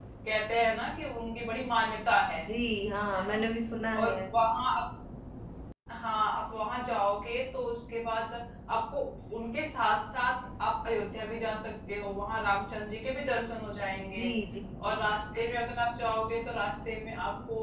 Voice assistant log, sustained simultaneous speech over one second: none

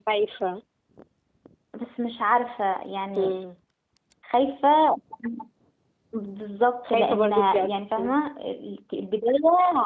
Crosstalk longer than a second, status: present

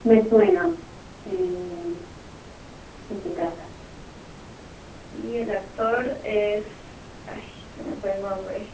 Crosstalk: none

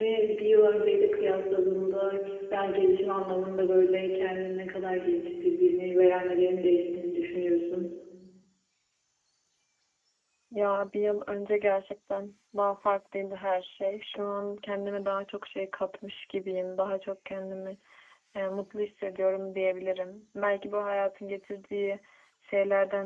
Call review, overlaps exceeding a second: none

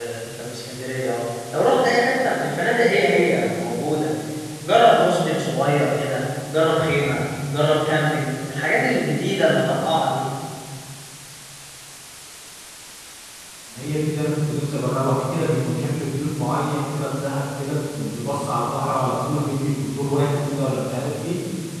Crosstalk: none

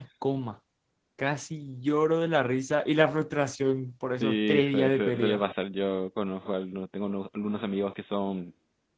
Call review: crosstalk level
present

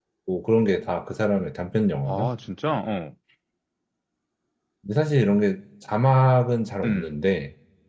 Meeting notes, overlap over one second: none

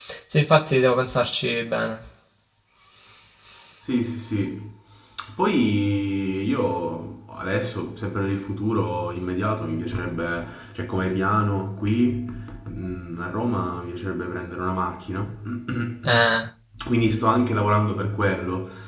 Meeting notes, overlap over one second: none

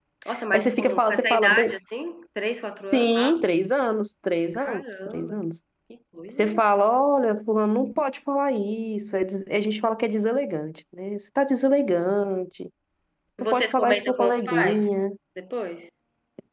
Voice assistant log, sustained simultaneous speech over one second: present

